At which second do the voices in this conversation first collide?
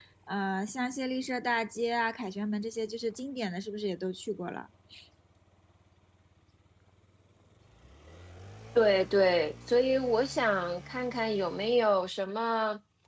none

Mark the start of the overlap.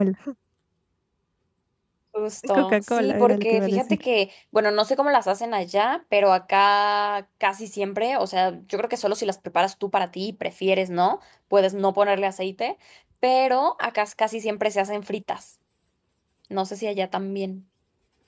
2.5 s

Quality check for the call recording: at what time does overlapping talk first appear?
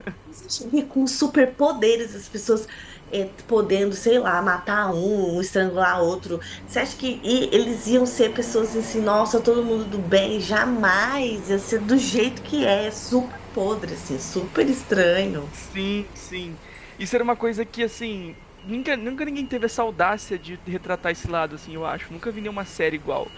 none

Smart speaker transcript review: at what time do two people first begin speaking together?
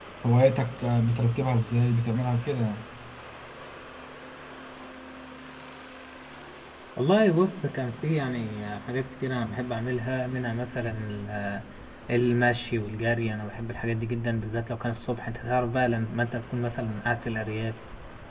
none

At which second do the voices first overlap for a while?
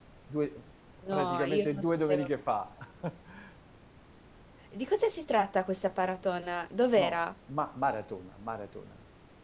1.1 s

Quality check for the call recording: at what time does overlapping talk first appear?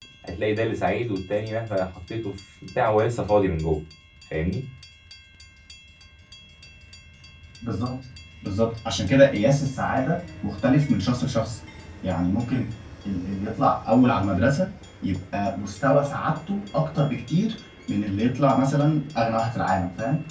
none

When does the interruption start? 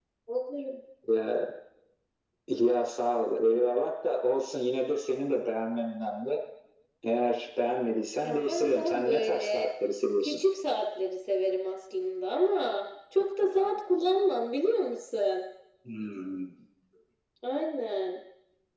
8.2 s

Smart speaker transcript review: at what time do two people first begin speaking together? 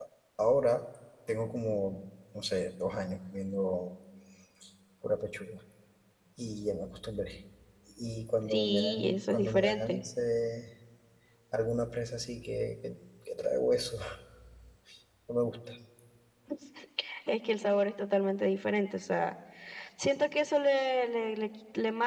8.5 s

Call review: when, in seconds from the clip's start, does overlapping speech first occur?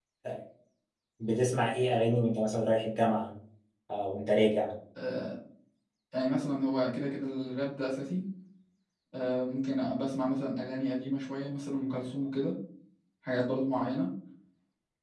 none

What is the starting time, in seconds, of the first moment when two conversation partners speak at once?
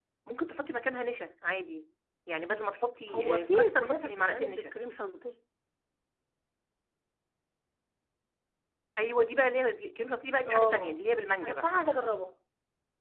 3.1 s

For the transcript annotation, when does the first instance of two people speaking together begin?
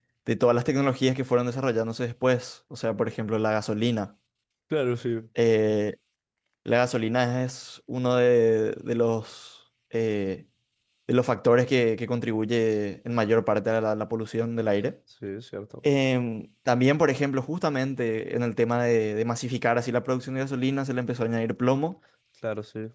none

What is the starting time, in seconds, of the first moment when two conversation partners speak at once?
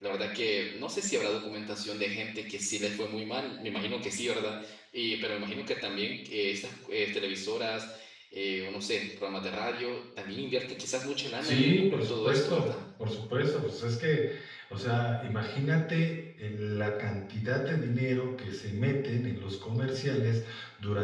11.4 s

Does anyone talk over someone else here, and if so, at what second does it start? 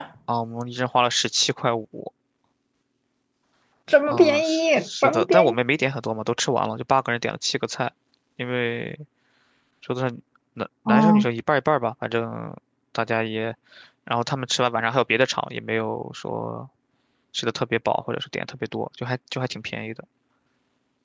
4.1 s

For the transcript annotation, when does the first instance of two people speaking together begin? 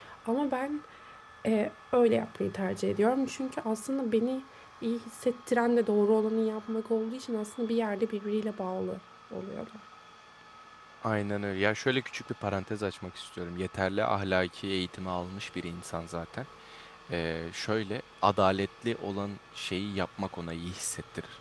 none

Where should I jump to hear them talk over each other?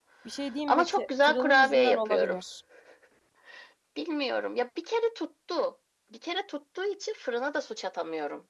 0.7 s

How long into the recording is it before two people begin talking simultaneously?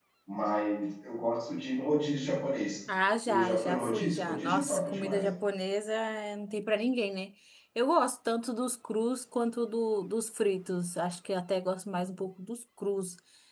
3.3 s

